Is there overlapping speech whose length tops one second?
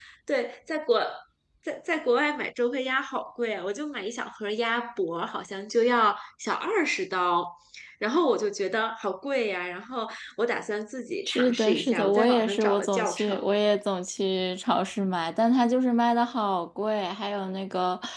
Yes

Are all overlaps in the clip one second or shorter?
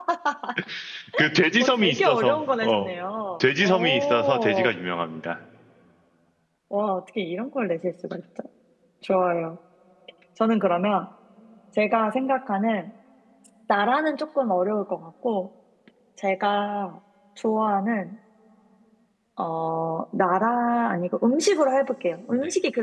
No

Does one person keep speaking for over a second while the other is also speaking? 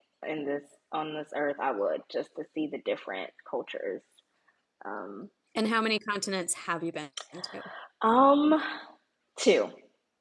No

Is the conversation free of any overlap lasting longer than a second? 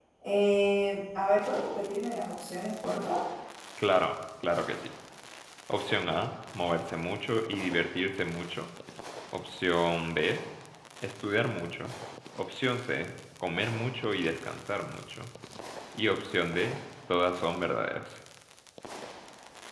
Yes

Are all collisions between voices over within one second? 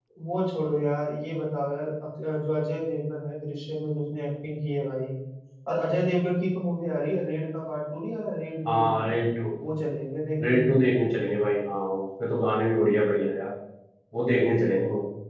Yes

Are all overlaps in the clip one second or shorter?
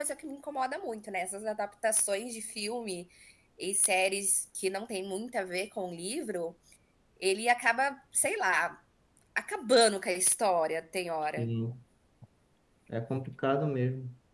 Yes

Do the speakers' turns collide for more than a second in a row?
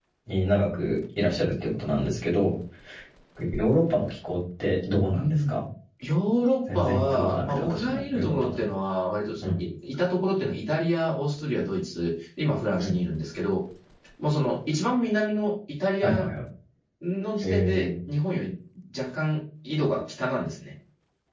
Yes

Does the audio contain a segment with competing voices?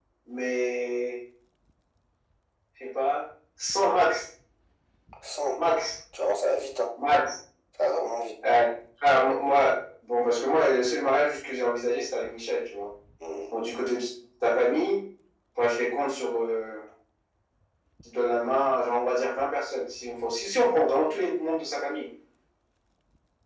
No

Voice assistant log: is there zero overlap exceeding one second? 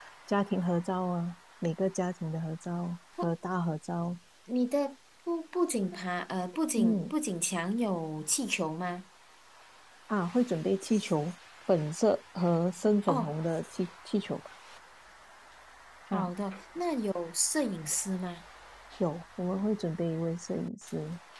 Yes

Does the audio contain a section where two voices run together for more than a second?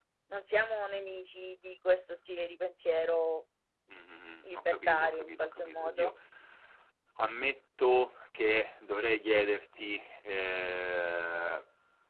Yes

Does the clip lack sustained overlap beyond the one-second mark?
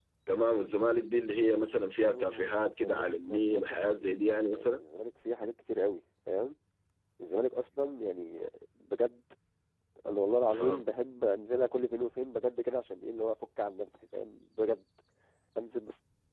No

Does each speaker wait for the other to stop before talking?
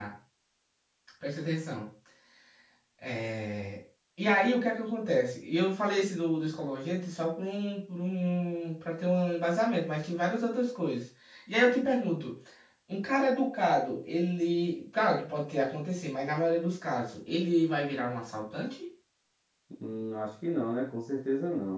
Yes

